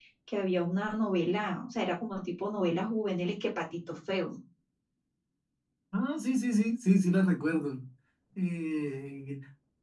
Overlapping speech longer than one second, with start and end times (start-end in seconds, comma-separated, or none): none